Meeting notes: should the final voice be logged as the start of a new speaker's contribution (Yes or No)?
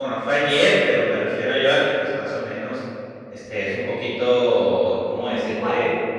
No